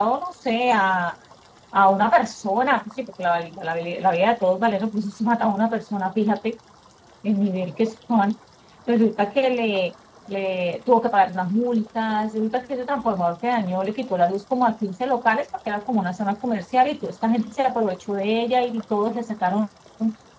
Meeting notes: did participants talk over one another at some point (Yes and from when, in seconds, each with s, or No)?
No